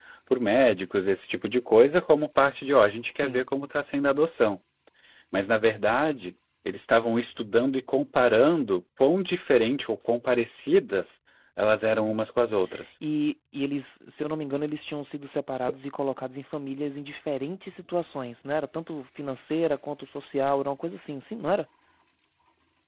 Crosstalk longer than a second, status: none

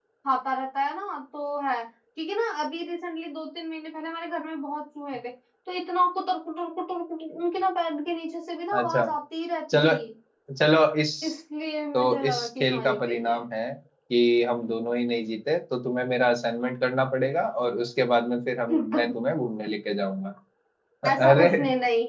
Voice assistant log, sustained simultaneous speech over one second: present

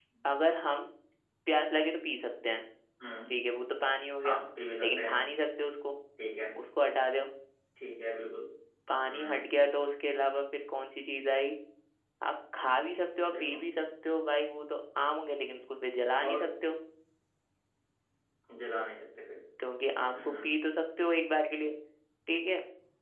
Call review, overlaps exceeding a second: none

